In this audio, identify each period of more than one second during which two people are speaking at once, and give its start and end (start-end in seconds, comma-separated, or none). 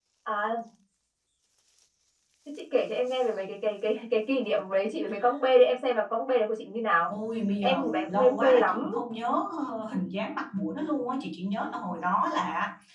7.6-8.9